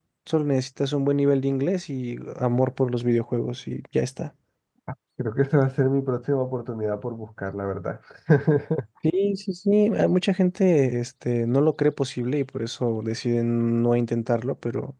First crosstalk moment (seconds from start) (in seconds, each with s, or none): none